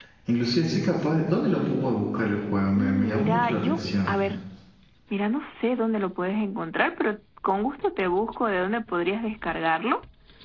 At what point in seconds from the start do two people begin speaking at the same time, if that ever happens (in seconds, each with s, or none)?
2.7 s